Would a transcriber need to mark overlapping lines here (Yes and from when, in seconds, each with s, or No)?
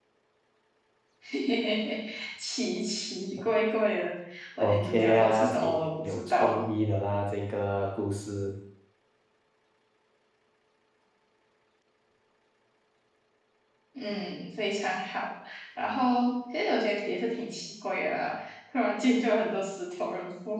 Yes, from 4.6 s